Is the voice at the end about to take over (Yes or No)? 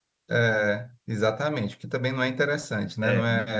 No